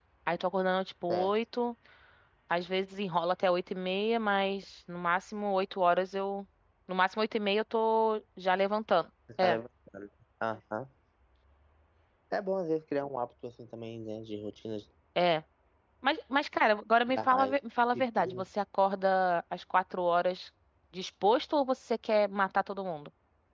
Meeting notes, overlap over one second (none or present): none